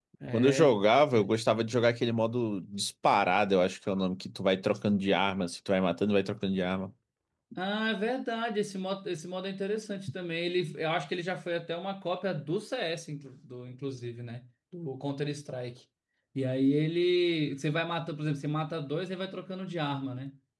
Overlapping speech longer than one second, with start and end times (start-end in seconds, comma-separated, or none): none